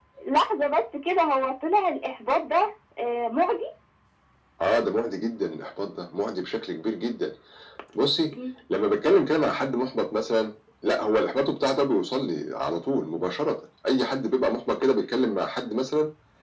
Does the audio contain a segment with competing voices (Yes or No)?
No